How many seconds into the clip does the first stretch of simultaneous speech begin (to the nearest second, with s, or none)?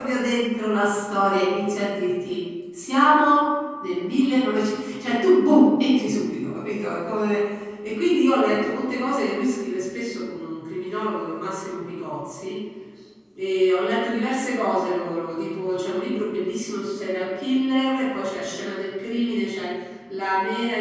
none